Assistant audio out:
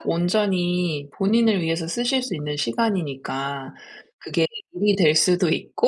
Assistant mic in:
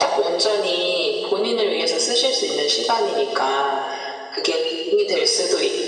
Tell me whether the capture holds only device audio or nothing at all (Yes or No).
Yes